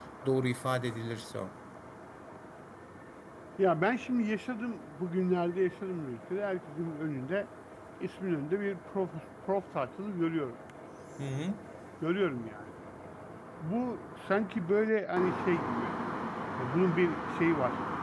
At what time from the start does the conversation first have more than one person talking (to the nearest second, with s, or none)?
none